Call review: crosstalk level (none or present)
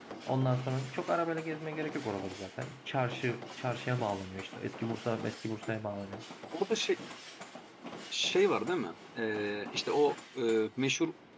none